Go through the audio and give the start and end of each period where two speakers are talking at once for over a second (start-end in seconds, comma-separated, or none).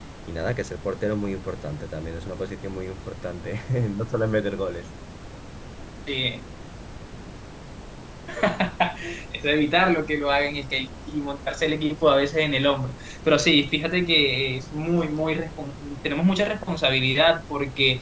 none